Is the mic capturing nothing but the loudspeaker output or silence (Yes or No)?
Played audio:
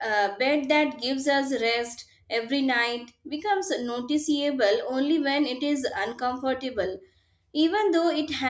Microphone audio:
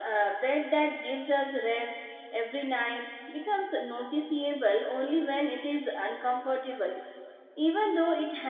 Yes